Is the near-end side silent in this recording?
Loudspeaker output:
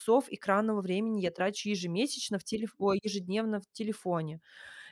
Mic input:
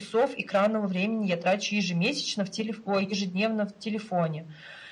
Yes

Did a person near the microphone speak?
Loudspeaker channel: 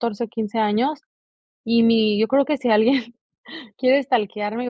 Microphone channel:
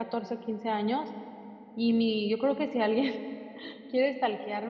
No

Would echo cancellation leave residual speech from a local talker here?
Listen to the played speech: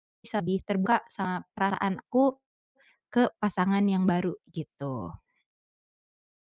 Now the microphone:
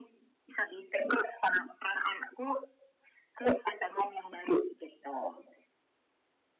No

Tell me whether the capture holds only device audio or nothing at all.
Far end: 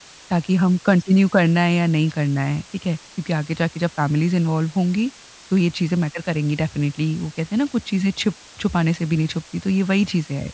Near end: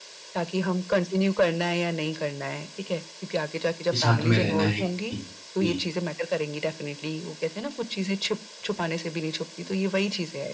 No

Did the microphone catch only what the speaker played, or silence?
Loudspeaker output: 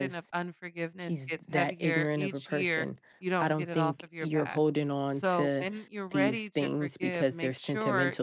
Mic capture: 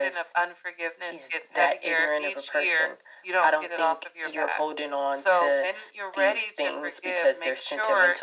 Yes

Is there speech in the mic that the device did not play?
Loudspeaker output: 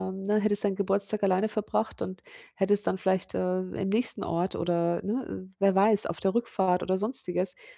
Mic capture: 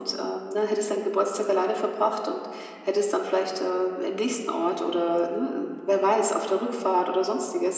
No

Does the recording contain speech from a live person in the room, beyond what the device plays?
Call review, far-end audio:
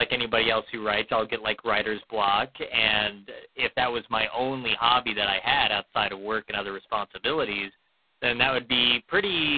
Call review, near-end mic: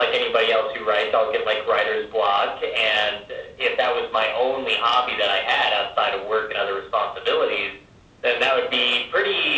No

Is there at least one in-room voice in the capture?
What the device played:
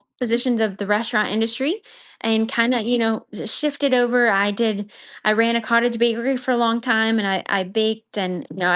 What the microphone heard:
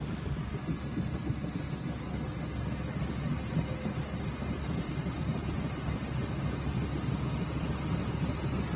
No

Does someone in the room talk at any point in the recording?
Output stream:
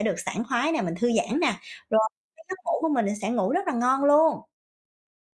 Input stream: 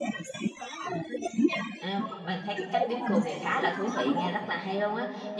Yes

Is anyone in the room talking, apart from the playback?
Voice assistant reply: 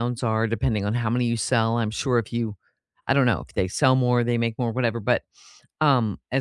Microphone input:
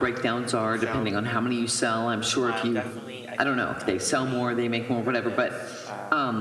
Yes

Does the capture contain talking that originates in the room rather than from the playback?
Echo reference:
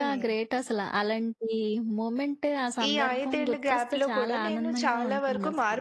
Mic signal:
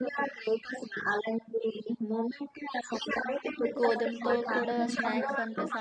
Yes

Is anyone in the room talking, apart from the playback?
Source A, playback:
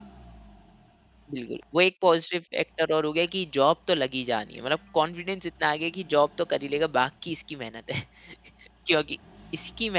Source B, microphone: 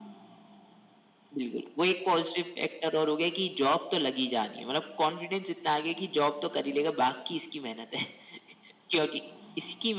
No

